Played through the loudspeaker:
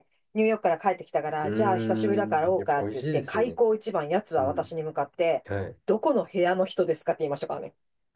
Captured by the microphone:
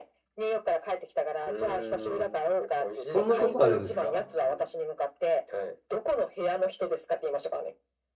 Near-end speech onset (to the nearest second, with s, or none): 3 s